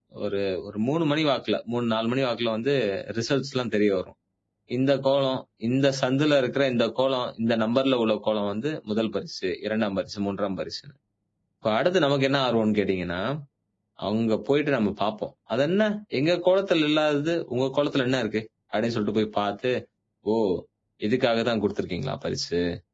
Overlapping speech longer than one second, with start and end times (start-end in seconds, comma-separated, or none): none